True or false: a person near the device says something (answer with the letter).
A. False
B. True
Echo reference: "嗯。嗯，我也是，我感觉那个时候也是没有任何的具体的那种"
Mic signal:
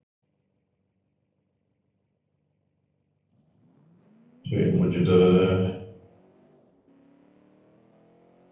B